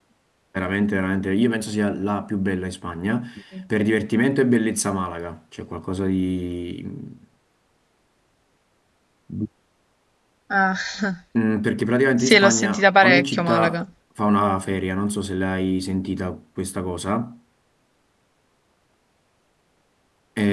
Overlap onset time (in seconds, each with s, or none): 12.2 s